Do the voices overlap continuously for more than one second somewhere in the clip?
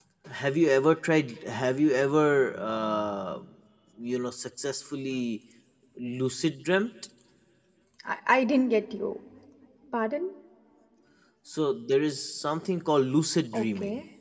No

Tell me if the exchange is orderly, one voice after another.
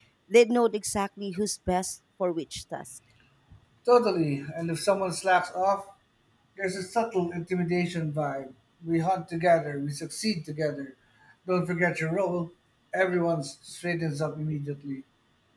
Yes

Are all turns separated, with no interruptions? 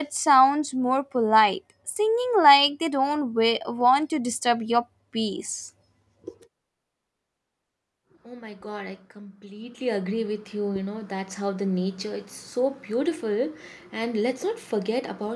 Yes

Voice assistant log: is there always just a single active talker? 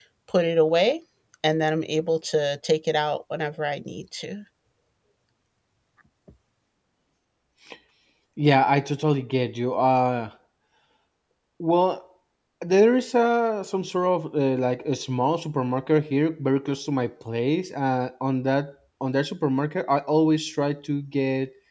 Yes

